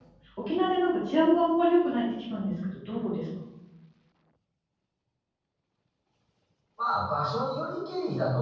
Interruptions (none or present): none